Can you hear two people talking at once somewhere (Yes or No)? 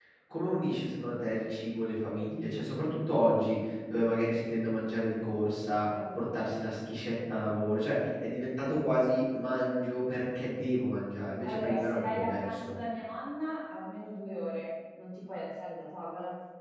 Yes